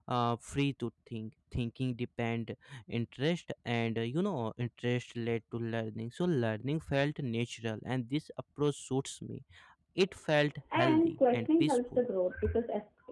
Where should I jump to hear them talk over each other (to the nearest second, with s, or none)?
11 s